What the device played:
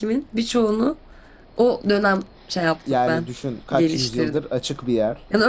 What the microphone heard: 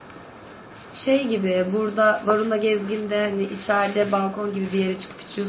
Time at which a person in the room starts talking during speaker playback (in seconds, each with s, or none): 0.9 s